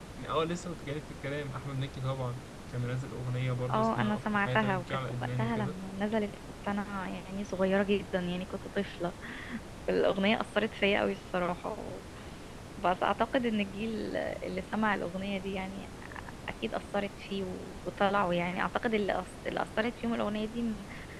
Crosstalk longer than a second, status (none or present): present